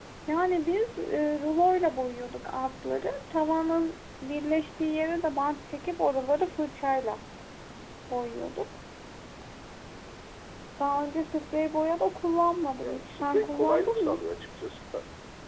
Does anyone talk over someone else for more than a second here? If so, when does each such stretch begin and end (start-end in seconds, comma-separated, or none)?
12.8-14.2